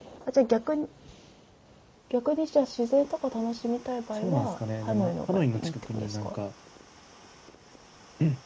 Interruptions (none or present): present